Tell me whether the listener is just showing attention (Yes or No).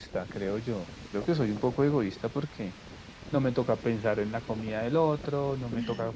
Yes